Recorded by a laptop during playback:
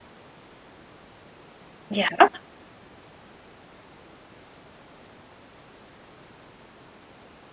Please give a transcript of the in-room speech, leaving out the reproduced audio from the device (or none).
Ja.